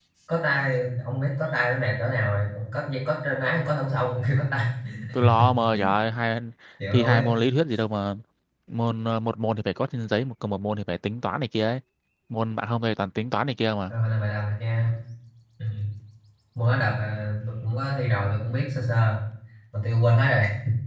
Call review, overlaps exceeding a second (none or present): none